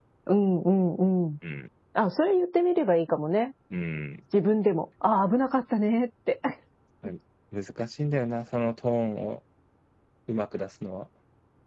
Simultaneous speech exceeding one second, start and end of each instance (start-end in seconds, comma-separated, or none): none